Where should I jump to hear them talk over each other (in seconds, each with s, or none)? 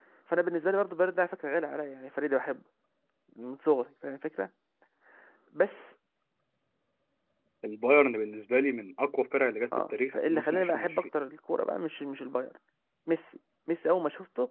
9.7 s